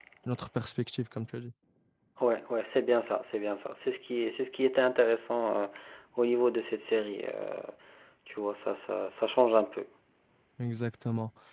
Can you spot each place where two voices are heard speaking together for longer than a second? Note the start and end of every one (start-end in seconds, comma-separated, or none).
none